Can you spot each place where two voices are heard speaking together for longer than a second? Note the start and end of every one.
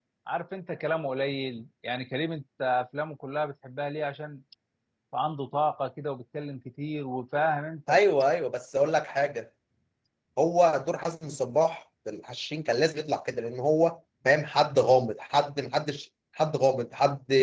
none

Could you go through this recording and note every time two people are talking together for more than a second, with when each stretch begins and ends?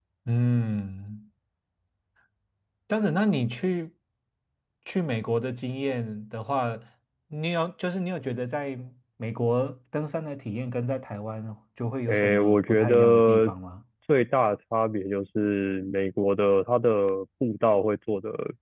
12.1-13.5

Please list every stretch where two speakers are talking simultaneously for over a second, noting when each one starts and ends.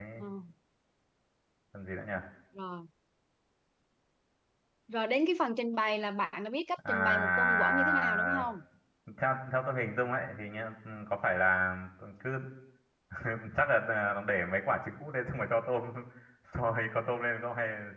6.9-8.5

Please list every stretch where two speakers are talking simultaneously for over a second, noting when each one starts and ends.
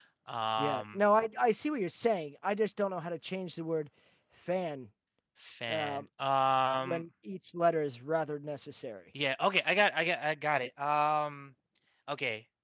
none

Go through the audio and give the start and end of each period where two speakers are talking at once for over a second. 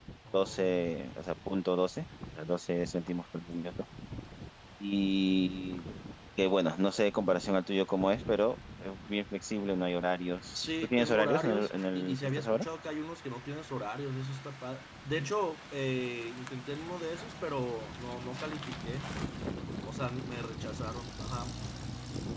10.6-12.6

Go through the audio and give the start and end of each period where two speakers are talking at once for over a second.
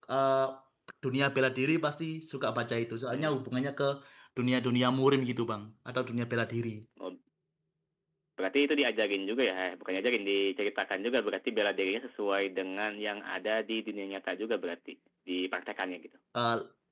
none

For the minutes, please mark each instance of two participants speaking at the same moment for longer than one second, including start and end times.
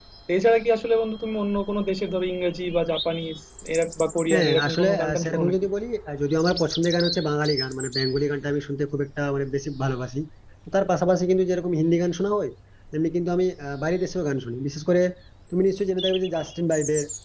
4.3-5.6

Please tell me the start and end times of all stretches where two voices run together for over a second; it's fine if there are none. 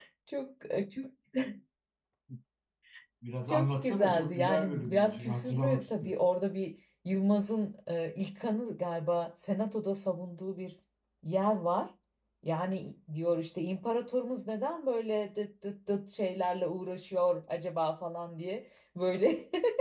3.5-6.2

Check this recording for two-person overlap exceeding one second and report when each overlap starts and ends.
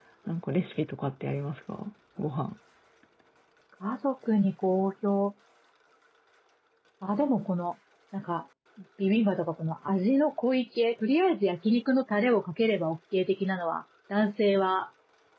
none

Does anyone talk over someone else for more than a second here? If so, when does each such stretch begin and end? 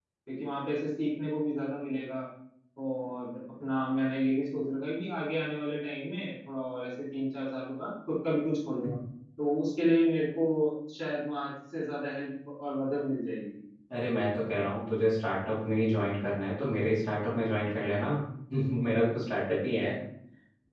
none

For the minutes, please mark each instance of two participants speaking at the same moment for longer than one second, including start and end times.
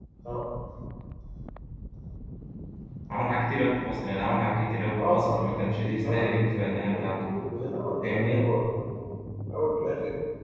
5.0-7.4

